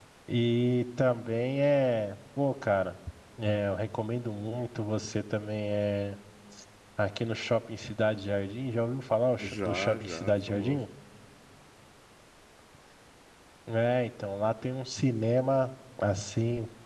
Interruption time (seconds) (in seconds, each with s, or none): 9.4 s